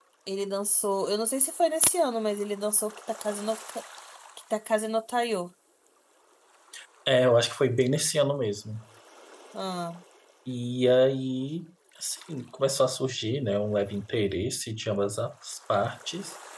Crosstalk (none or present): none